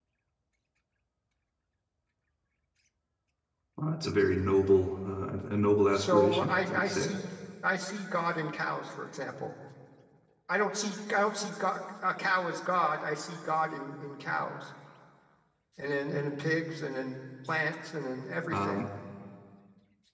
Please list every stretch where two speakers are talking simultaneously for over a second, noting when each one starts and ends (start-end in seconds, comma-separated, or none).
5.9-7.2